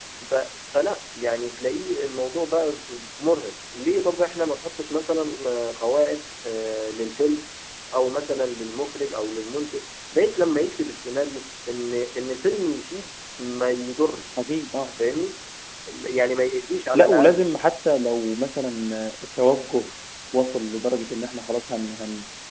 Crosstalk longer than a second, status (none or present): none